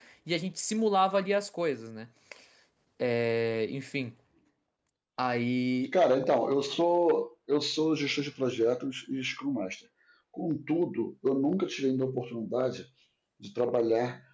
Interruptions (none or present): none